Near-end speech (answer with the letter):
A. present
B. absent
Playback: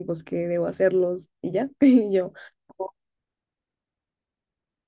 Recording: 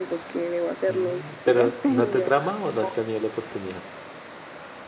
A